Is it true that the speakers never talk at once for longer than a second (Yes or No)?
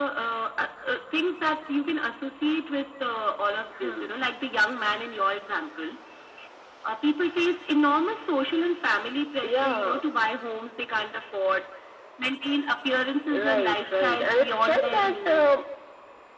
No